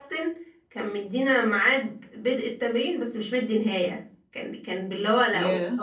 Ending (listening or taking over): listening